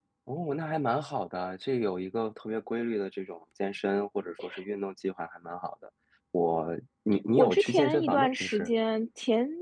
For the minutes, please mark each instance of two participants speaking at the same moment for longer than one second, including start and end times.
7.4-8.7

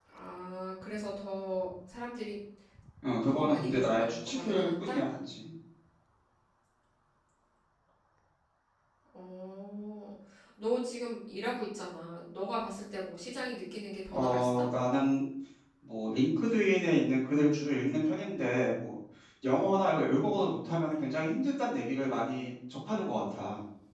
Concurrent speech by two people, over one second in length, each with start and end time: 3.3-5.0

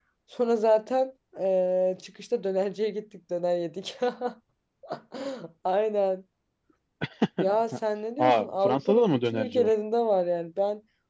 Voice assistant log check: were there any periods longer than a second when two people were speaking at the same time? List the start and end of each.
8.2-9.7

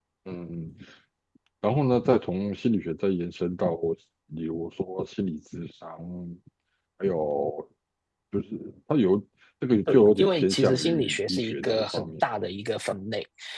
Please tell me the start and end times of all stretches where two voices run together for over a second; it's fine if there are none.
9.9-12.1

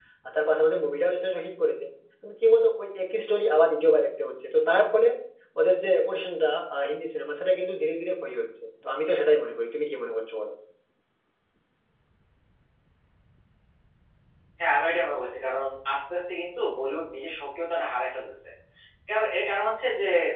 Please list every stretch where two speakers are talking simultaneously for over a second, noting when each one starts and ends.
none

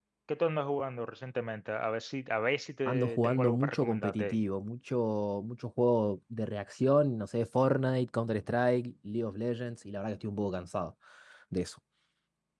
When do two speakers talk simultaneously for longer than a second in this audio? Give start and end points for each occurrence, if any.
2.8-4.4

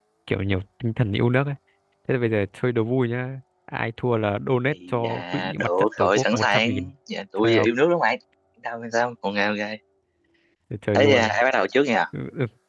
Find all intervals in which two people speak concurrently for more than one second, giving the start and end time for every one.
4.9-6.9

